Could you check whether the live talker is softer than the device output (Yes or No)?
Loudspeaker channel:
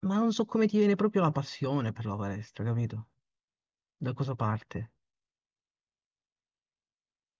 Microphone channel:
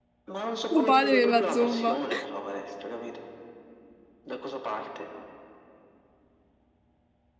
No